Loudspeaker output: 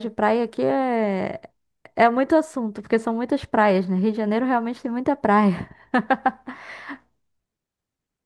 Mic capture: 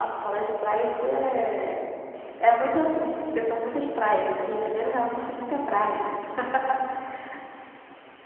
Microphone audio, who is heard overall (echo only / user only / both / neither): echo only